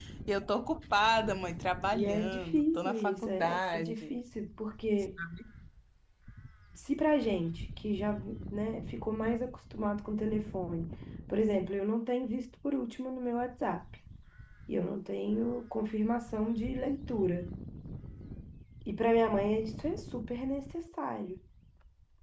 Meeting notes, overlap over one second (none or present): present